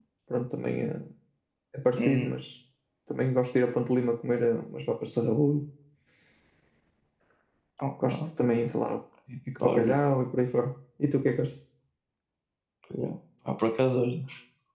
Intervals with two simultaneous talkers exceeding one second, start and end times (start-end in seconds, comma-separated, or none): none